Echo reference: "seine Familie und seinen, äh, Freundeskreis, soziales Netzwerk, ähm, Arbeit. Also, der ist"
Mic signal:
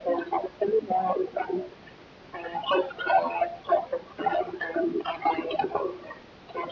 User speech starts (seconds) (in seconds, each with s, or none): none